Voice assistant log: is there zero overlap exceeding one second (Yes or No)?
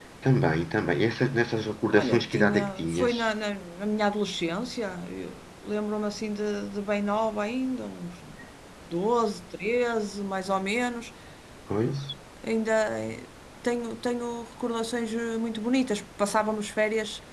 No